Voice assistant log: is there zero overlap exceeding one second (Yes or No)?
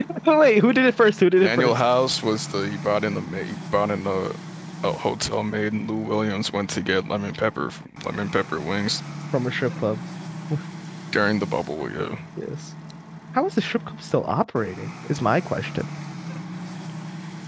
Yes